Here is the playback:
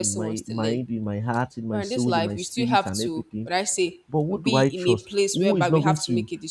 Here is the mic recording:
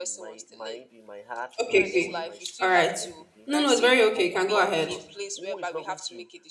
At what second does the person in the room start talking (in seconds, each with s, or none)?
1.6 s